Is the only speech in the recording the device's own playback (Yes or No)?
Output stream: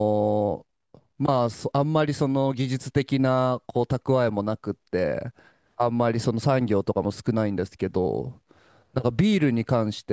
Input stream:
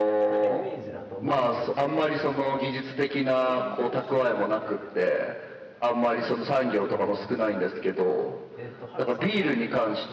No